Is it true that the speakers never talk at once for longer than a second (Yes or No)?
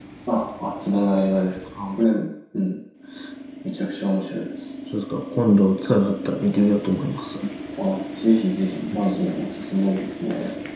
Yes